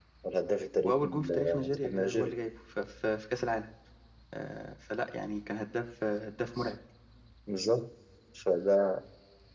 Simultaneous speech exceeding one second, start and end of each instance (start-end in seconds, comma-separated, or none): 0.8-2.3